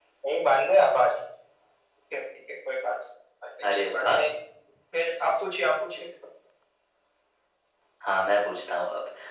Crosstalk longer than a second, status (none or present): none